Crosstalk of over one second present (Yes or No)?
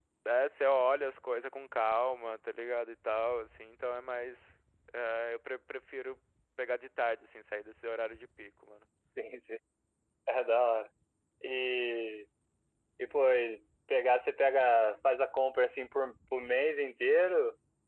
No